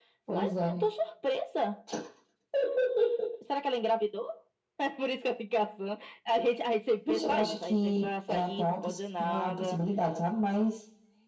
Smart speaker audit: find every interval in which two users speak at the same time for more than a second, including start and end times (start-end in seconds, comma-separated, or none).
7.1-9.8